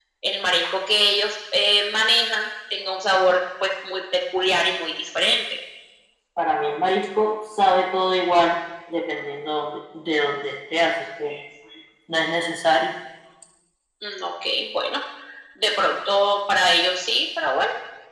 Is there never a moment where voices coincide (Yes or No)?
Yes